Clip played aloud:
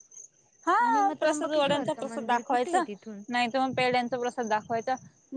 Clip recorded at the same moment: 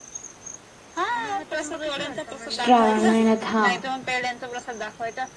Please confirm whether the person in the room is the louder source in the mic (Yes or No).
Yes